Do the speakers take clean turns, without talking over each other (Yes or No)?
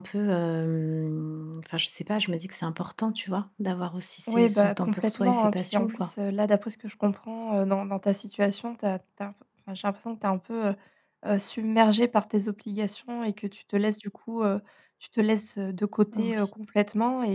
No